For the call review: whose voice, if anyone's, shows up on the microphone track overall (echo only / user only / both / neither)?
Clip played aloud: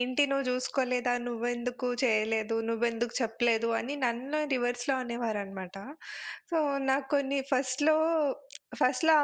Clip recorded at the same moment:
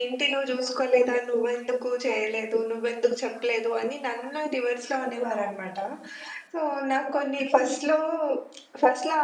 echo only